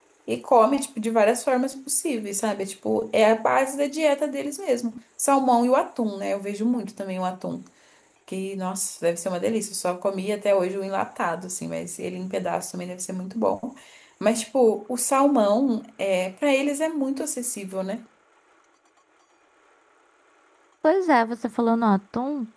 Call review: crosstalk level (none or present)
none